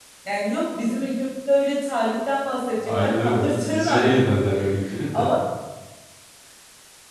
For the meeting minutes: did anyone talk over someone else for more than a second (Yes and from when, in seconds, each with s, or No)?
Yes, from 2.8 s